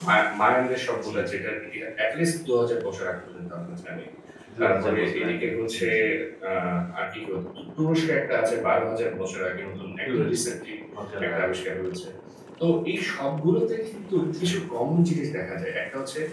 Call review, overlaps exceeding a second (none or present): present